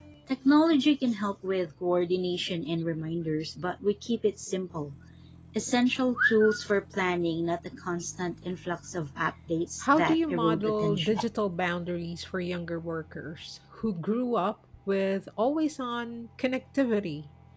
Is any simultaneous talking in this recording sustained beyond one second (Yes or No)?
Yes